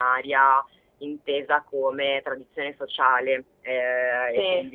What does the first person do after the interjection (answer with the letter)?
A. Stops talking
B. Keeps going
B